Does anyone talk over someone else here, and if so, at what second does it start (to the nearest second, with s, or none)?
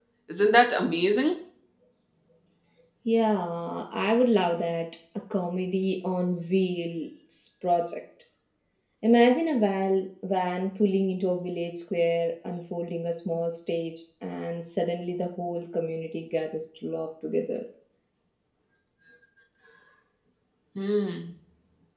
none